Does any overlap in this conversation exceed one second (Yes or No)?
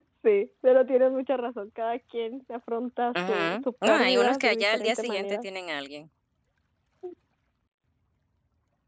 Yes